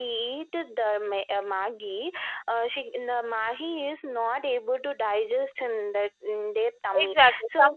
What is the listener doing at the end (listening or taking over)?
taking over